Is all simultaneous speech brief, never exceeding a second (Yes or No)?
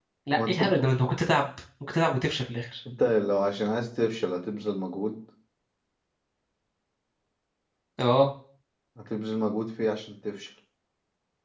Yes